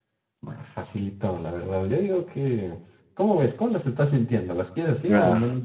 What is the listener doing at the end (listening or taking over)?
taking over